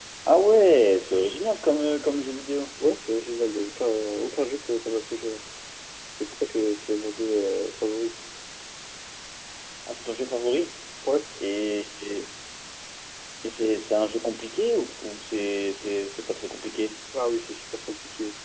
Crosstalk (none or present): none